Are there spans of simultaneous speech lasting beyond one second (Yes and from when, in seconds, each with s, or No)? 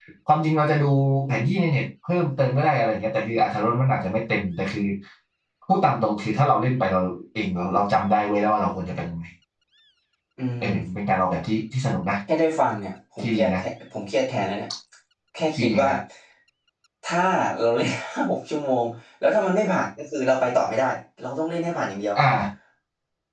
No